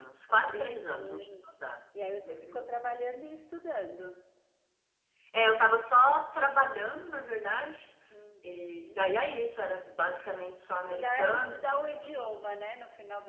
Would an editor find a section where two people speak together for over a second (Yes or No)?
Yes